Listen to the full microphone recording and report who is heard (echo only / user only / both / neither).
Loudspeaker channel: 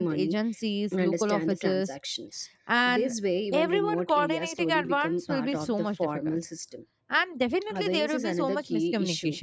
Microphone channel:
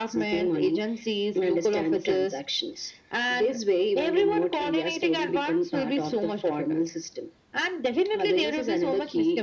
echo only